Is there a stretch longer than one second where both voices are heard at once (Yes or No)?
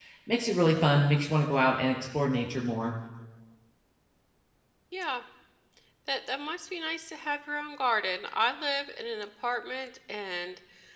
No